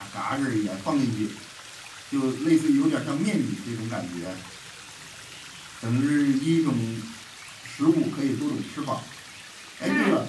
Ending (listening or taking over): listening